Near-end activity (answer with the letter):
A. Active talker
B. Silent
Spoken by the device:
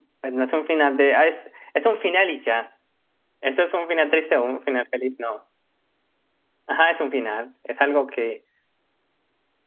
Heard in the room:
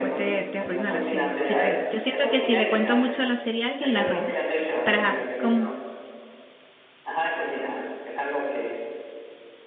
A